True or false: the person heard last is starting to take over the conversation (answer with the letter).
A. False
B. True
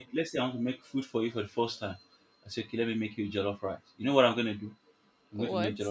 A